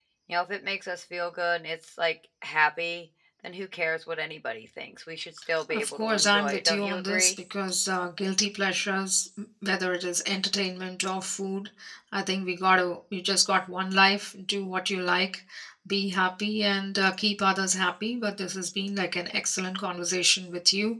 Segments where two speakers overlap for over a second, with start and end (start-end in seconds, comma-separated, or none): 5.7-7.3